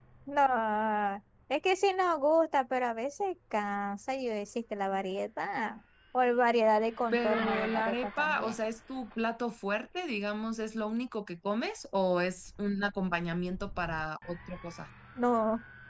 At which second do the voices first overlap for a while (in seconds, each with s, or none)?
7.1 s